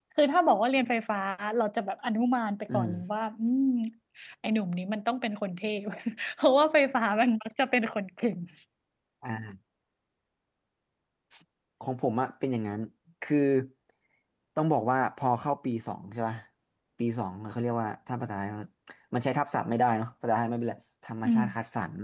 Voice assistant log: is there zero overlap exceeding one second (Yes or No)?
Yes